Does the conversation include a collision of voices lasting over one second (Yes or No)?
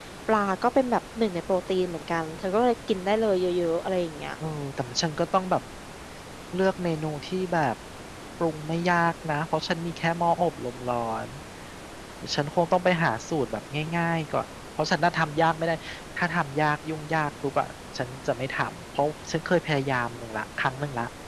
No